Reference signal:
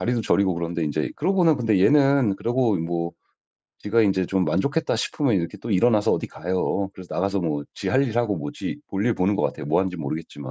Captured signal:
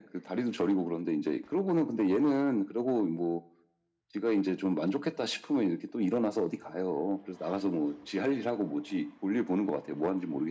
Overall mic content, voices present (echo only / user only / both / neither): echo only